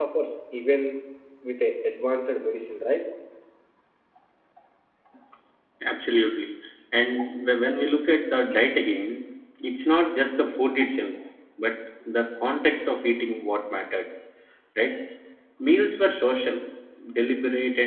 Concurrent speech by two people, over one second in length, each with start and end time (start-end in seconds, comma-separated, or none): none